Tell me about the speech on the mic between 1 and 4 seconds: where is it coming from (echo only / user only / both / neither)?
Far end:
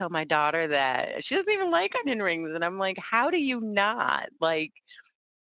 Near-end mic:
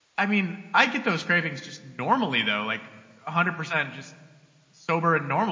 user only